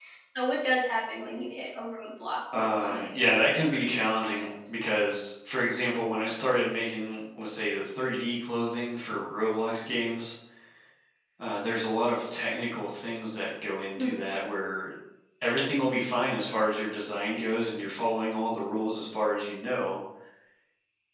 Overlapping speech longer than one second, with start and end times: 2.5-4.7

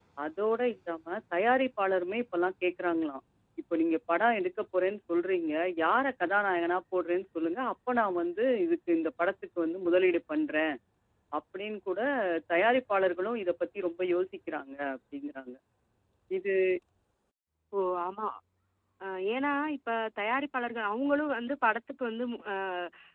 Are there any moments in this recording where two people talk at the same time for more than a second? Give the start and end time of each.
none

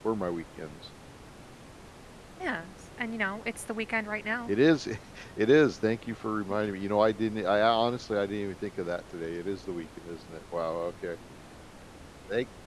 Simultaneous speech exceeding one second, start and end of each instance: none

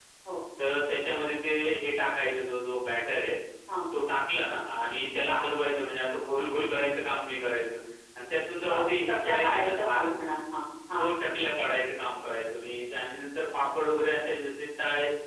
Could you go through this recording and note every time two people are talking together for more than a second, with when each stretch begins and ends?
8.7-10.1

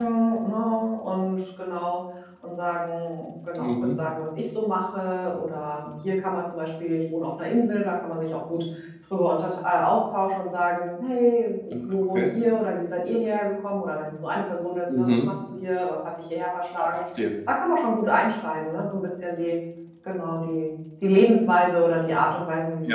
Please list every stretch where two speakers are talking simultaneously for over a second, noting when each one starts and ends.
none

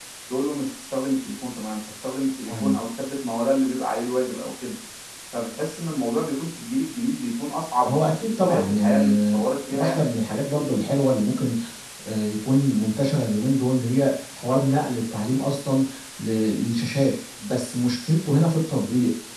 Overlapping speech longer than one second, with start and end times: 7.9-9.1

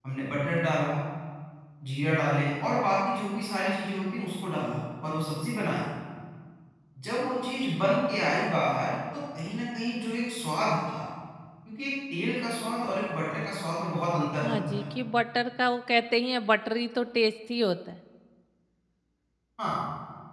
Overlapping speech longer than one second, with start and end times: none

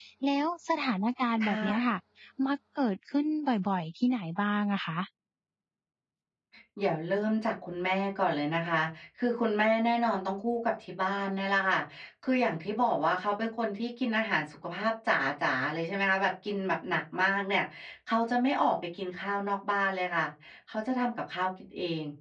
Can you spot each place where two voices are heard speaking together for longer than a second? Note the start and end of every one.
none

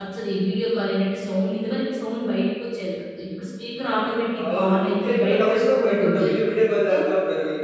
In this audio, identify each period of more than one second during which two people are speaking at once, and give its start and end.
4.4-6.3

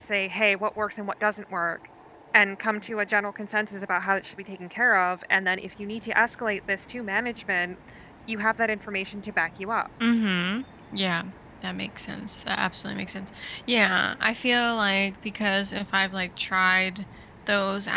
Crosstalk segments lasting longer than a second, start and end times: none

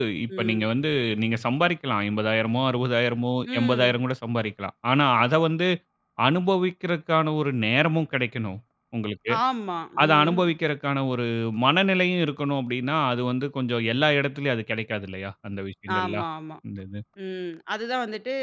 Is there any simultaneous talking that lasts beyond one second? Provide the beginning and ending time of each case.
none

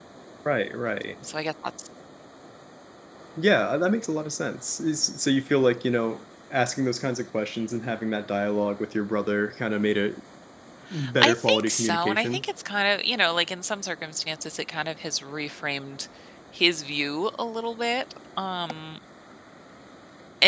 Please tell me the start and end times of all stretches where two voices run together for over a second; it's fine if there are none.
11.2-12.4

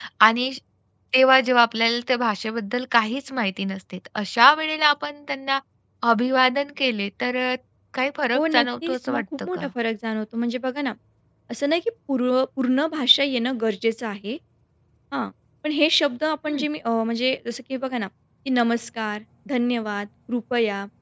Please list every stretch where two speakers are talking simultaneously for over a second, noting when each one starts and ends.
8.4-9.7

